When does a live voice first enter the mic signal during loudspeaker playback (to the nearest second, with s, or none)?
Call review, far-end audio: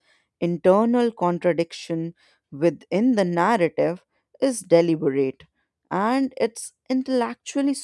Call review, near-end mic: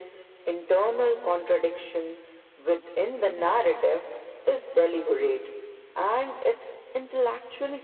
none